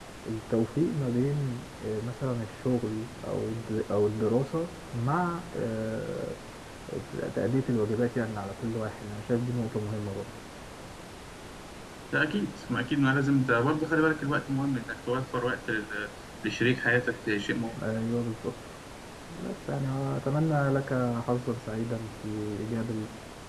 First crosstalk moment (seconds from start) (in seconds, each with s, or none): none